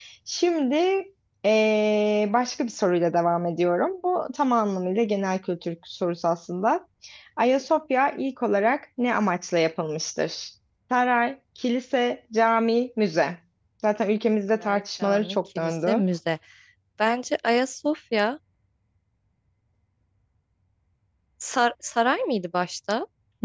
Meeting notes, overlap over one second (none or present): present